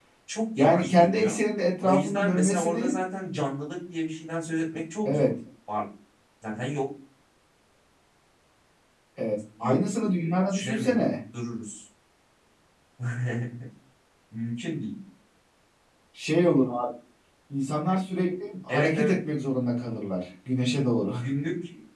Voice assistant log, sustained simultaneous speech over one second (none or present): present